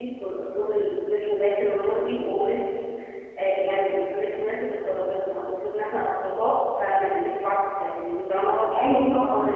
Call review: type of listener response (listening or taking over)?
listening